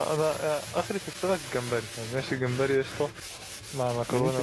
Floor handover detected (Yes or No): No